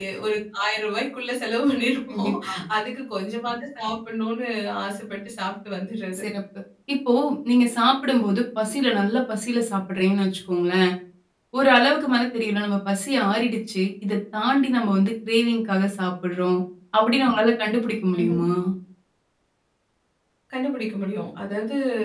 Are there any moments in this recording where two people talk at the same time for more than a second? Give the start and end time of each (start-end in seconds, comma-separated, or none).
none